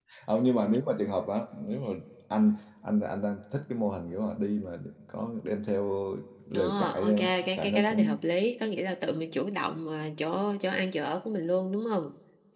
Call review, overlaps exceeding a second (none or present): present